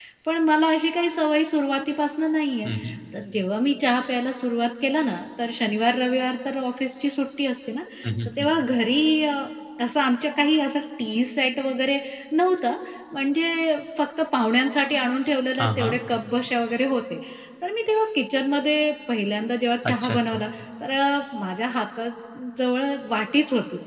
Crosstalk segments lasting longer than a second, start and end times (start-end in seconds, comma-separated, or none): none